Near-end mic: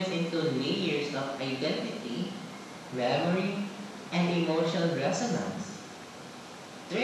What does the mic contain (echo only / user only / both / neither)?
echo only